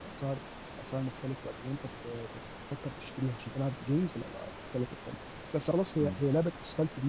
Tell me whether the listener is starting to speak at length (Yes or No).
No